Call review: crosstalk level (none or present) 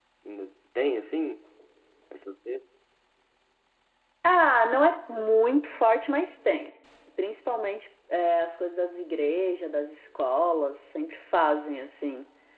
none